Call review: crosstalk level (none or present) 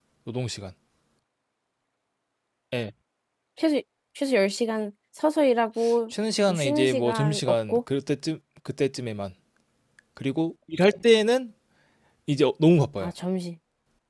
present